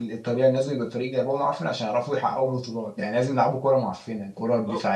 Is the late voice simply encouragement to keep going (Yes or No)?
No